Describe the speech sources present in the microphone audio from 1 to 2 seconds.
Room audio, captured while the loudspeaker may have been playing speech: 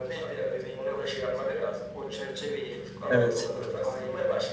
echo only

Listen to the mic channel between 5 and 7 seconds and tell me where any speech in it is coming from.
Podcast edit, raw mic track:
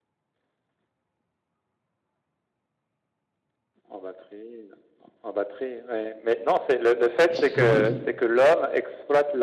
echo only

